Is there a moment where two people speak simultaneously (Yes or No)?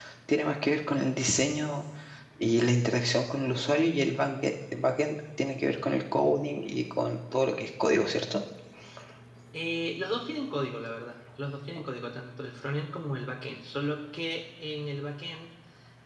No